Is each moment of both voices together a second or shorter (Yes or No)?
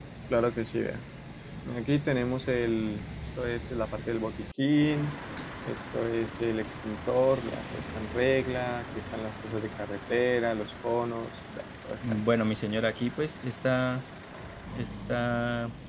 Yes